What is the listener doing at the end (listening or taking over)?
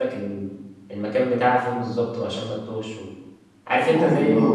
listening